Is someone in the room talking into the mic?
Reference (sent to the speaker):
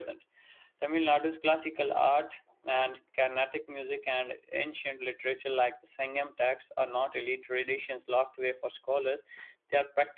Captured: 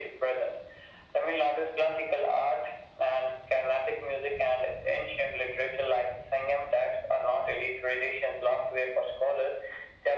No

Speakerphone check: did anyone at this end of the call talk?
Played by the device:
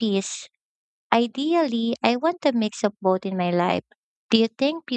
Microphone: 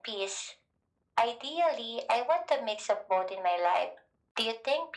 No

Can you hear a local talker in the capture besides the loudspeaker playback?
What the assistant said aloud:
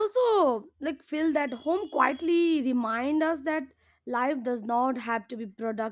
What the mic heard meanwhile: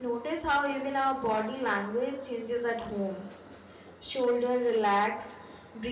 Yes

